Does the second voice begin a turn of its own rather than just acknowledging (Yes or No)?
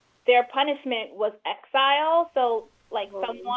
No